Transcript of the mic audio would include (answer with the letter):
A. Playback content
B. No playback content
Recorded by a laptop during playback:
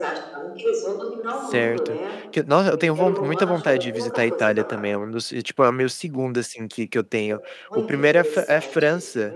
A